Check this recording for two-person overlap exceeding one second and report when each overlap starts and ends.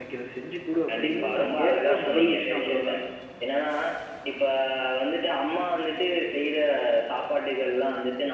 0.9-2.9

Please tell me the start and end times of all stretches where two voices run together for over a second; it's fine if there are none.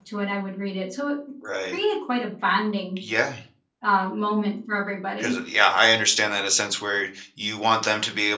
none

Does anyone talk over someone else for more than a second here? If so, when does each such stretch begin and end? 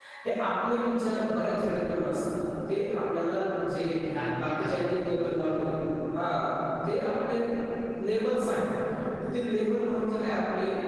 4.4-5.8

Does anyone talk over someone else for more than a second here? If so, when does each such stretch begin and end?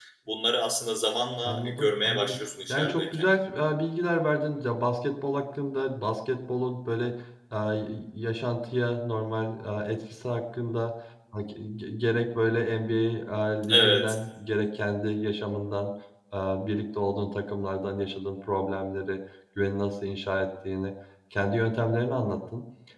1.4-3.3

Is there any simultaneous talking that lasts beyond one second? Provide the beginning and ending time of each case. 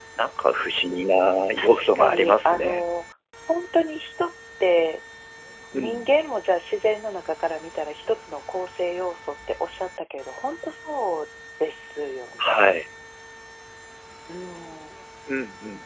1.6-2.9

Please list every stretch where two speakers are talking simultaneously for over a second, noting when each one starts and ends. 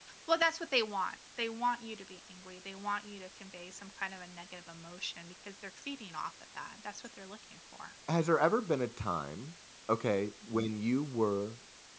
none

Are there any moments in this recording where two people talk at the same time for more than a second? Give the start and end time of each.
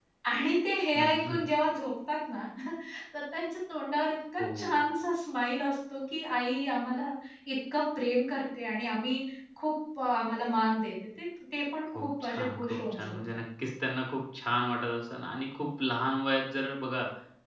11.9-13.2

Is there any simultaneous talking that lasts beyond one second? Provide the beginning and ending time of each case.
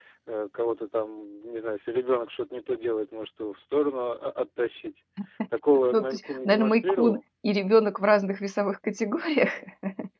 5.9-7.2

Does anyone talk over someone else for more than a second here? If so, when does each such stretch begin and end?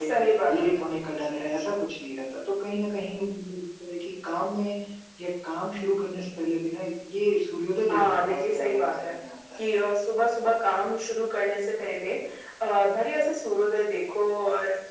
7.9-9.1

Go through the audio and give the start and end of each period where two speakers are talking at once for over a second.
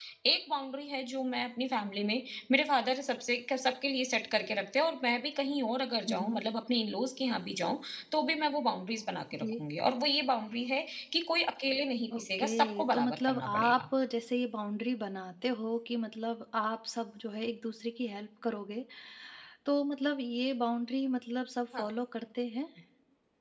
12.2-13.8

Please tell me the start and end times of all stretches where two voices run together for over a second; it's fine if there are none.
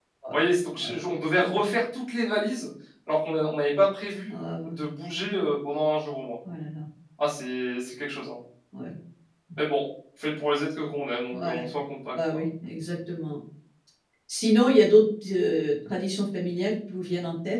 none

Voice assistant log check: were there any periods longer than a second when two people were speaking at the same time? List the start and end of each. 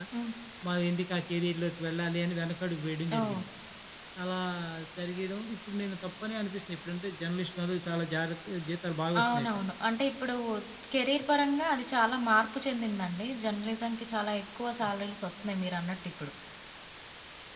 none

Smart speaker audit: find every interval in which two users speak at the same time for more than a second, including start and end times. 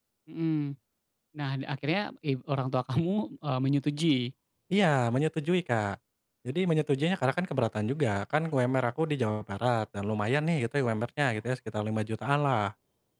none

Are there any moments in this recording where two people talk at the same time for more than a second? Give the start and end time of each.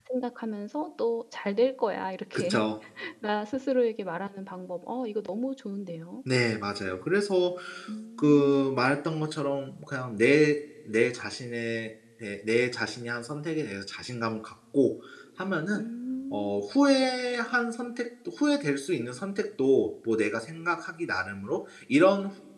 none

